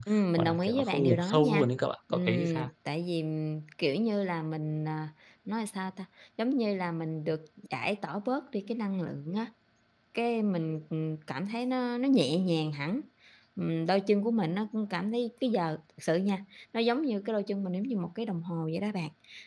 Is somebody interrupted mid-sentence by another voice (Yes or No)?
Yes